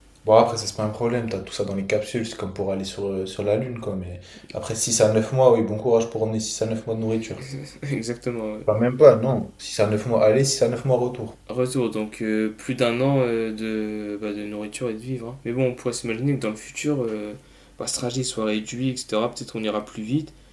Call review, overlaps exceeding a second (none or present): none